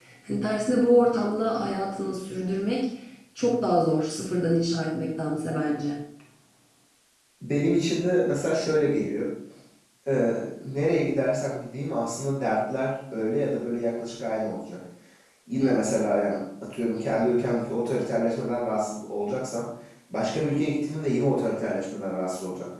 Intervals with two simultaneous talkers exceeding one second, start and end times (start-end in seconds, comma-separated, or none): none